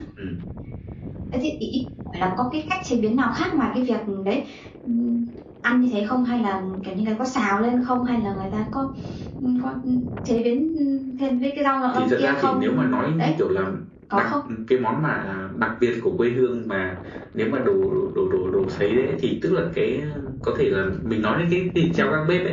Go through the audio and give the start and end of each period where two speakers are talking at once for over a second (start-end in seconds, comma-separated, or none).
11.9-13.3